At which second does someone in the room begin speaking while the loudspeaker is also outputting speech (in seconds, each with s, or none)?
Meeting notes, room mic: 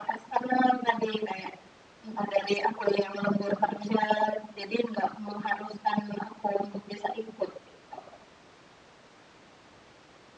none